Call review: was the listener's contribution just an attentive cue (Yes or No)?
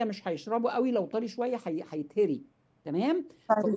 Yes